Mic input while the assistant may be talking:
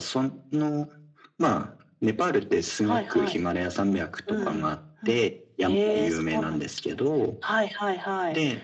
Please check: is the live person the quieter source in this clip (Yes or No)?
Yes